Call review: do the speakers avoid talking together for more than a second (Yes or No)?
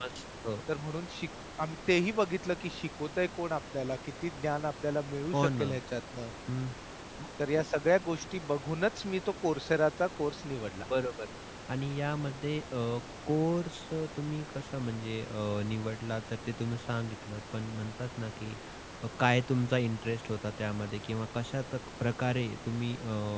Yes